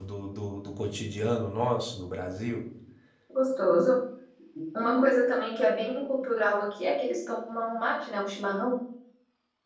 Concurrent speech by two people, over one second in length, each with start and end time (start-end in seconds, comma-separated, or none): none